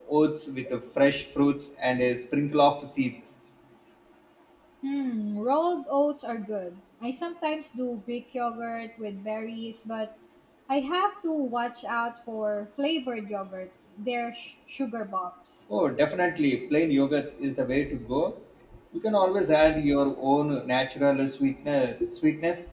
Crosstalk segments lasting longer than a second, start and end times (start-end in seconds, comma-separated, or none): none